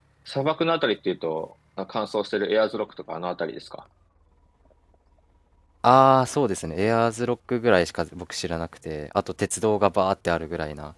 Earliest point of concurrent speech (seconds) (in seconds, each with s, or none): none